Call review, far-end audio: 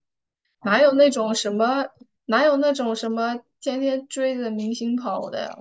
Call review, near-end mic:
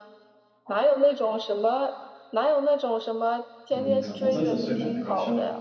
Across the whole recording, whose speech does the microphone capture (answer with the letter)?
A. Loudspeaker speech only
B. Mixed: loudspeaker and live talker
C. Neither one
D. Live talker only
B